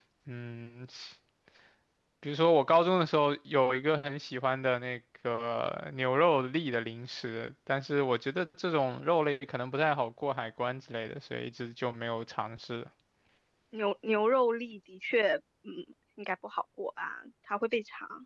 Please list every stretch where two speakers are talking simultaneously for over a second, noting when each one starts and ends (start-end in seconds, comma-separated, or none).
none